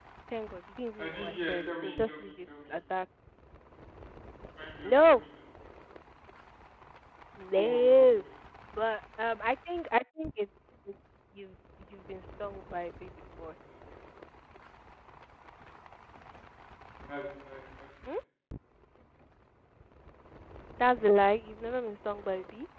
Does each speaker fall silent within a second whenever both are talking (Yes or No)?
No